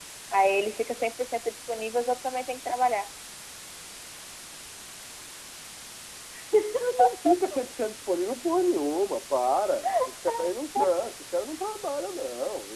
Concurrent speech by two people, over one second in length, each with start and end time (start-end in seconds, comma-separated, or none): none